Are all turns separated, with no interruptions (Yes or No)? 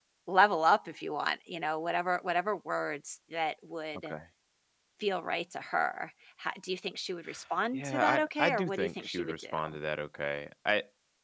No